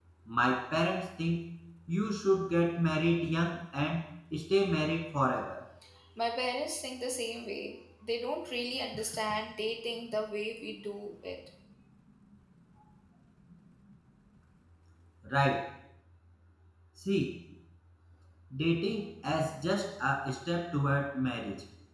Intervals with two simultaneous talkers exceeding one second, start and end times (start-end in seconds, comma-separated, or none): none